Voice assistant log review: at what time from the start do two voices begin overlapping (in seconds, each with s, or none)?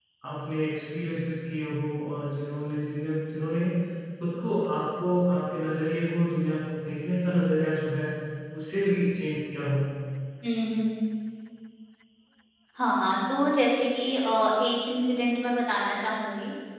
none